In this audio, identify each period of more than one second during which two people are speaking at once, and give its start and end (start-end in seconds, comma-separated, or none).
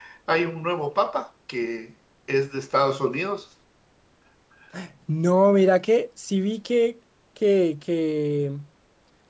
none